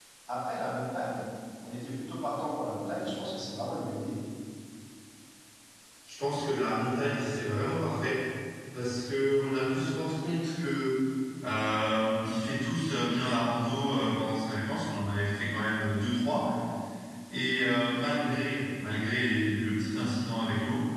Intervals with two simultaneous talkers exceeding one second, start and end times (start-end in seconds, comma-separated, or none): none